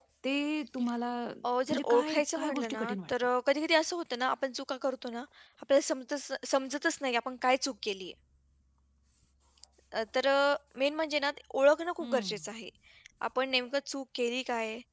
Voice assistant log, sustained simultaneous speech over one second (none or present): present